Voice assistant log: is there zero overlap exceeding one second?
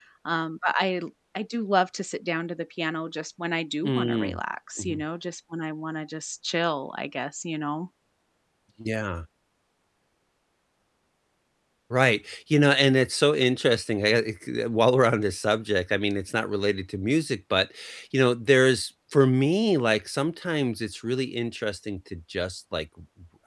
Yes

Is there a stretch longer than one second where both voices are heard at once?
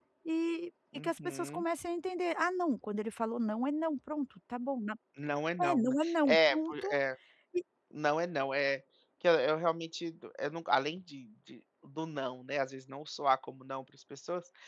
Yes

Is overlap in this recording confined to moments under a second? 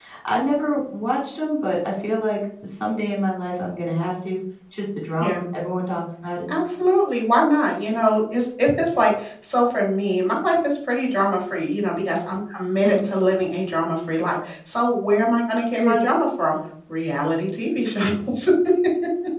Yes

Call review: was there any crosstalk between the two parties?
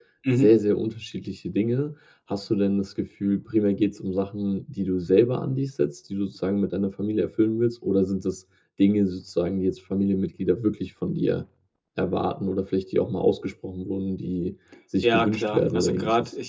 Yes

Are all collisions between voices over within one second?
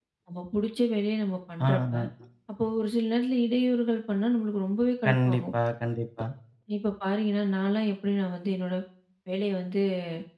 Yes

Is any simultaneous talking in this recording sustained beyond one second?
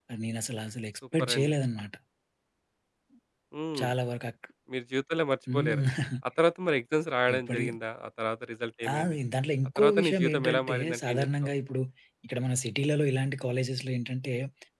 Yes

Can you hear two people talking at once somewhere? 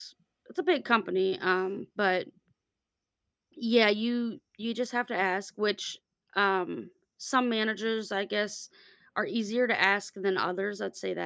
No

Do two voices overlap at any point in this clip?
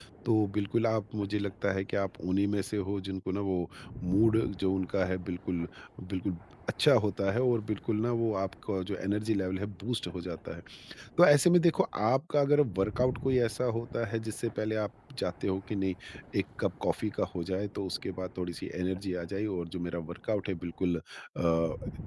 No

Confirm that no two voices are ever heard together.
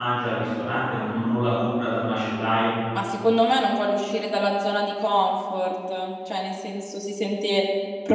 Yes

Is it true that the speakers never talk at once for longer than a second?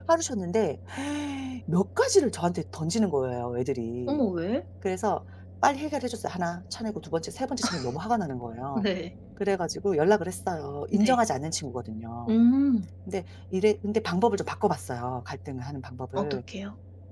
Yes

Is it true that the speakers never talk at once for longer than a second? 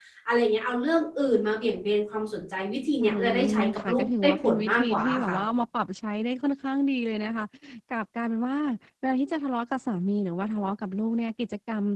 No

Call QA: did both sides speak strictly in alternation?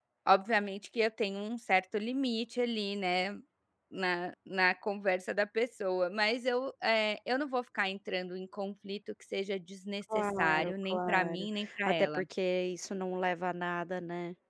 No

